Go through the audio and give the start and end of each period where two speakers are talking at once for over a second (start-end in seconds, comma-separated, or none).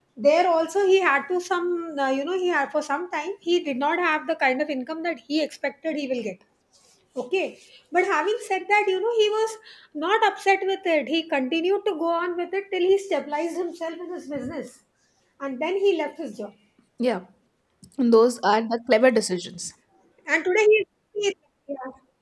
none